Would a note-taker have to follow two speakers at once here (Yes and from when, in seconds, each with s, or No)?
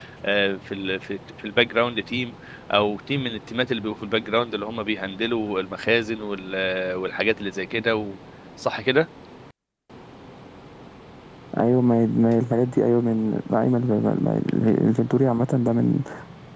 No